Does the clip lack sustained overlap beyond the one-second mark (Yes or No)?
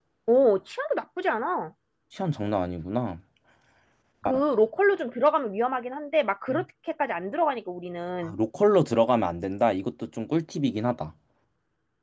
Yes